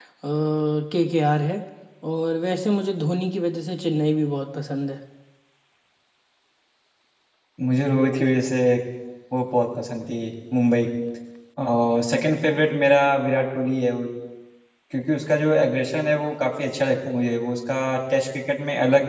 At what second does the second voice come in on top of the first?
none

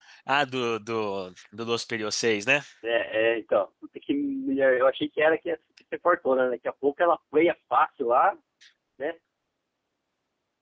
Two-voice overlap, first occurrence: none

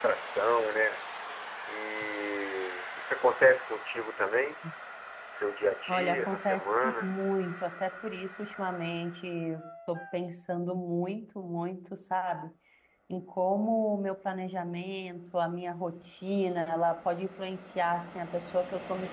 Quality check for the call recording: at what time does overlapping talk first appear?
5.9 s

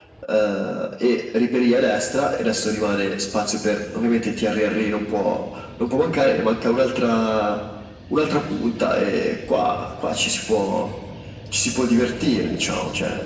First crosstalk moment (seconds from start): none

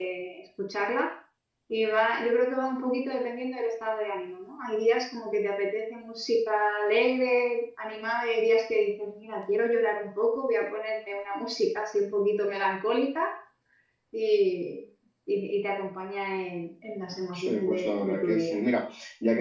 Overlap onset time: 17.3 s

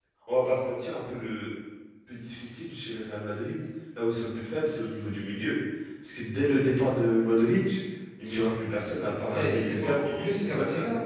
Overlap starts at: 9.3 s

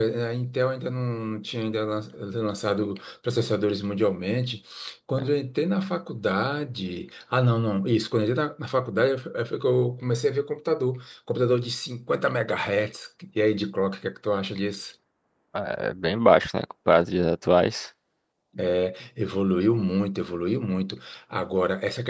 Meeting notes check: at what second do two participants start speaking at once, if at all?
none

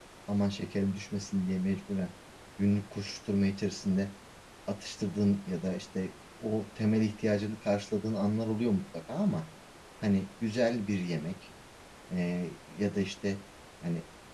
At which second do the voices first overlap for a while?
none

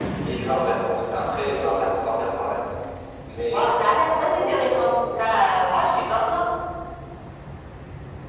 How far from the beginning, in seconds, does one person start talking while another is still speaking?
3.5 s

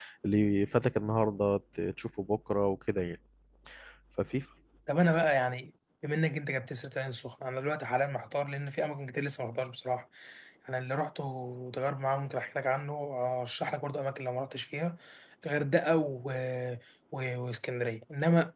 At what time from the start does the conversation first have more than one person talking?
none

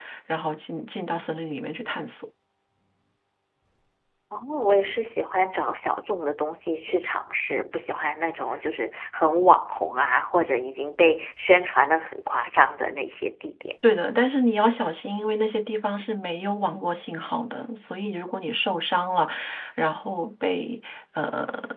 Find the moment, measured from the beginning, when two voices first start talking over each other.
none

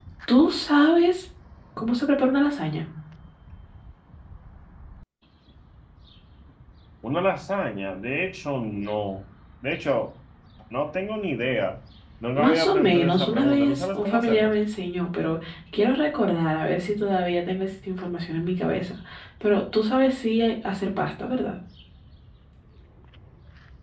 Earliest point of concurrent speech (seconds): 12.3 s

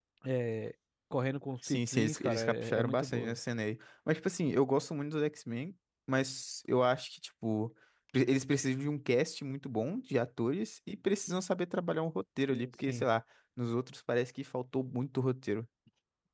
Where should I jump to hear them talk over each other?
1.6 s

